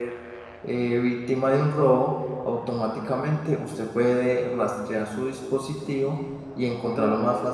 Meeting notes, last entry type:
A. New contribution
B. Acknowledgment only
A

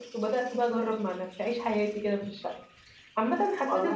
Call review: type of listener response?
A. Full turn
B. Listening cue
B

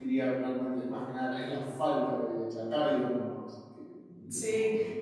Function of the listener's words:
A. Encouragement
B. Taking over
B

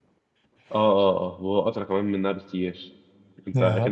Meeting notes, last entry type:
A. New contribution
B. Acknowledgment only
B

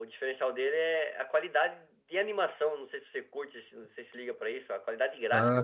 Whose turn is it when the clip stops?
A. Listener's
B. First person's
A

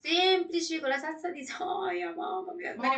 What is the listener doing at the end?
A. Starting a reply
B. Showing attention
A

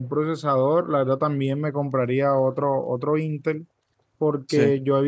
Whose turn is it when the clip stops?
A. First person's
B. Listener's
A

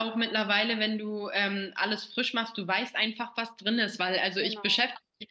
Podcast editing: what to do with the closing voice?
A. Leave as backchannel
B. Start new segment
A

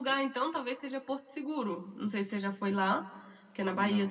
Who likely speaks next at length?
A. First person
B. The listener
A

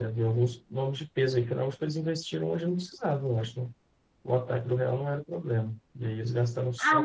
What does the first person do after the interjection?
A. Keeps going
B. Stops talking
B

